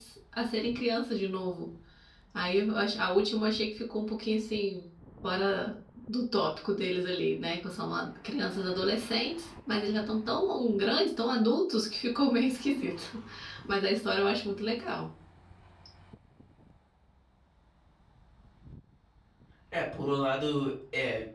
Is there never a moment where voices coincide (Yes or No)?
Yes